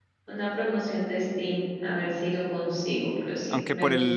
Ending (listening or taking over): taking over